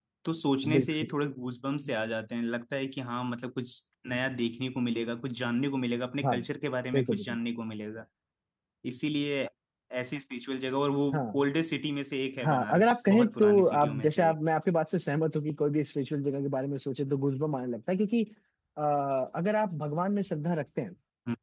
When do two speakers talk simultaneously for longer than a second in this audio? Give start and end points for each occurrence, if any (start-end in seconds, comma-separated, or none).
12.4-14.4